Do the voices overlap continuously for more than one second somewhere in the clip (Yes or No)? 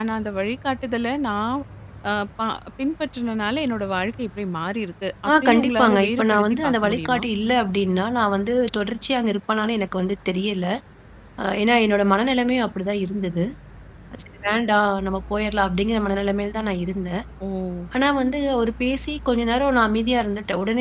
Yes